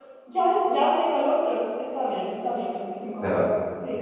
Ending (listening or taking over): taking over